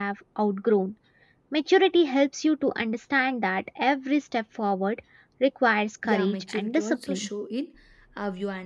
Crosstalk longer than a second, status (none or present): present